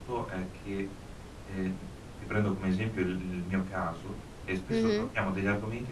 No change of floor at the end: Yes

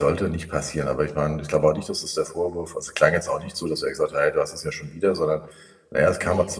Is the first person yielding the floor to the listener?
No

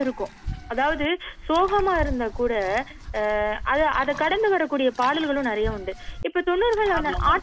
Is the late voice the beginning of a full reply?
No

